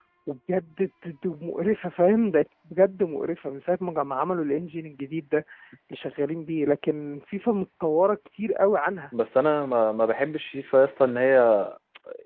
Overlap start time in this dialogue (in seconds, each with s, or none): none